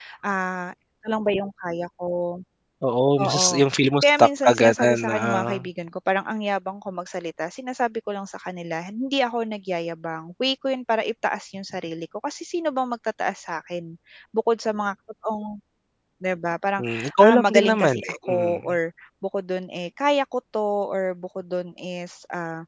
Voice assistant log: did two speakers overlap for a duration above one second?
Yes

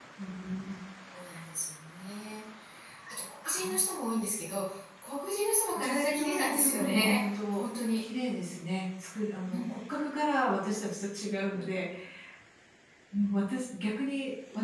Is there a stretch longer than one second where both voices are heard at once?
Yes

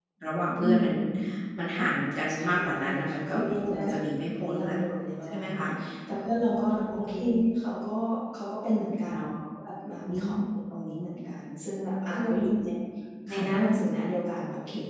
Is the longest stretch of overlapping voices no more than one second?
No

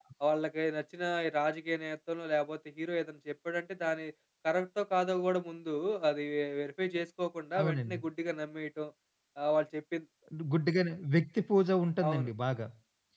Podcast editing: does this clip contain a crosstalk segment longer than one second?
No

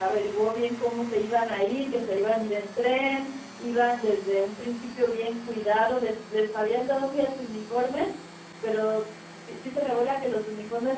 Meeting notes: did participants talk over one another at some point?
No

